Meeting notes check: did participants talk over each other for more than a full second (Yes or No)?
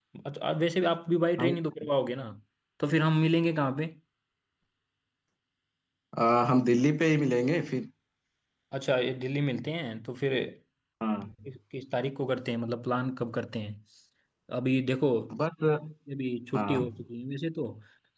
No